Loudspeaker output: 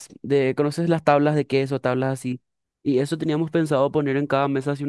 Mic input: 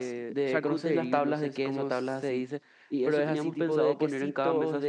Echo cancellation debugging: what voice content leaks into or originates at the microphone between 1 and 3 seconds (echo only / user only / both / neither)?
both